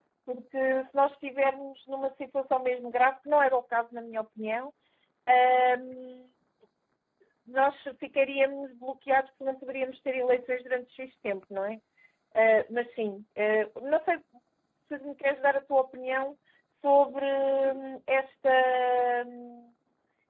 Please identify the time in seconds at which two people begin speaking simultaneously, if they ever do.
none

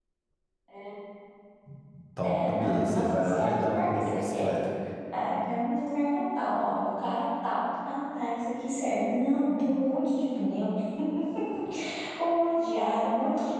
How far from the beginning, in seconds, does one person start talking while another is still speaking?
2.2 s

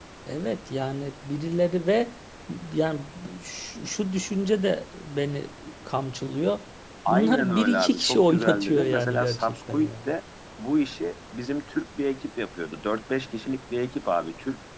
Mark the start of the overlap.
7.1 s

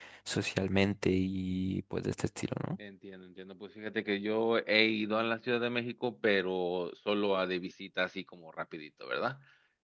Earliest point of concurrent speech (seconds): none

